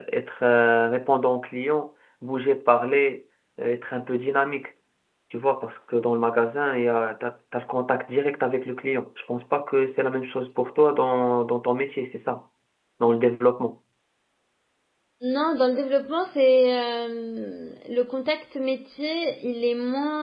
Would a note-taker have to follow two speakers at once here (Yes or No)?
No